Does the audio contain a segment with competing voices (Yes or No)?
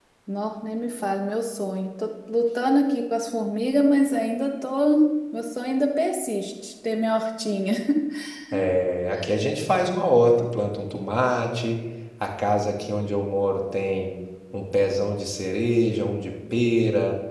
No